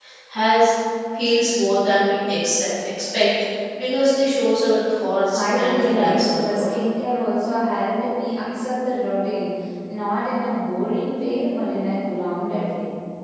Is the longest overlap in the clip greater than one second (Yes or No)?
Yes